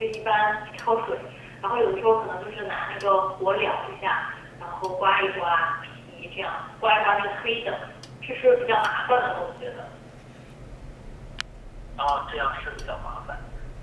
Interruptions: none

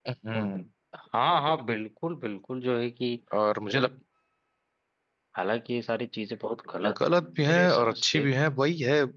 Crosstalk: present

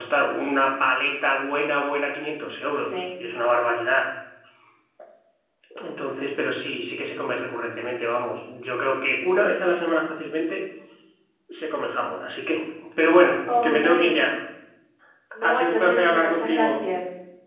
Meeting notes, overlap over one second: present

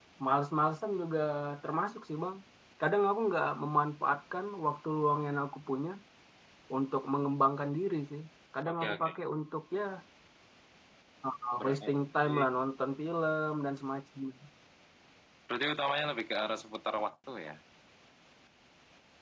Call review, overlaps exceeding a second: none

